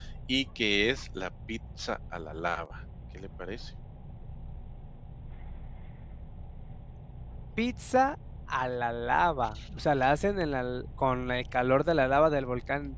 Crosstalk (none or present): none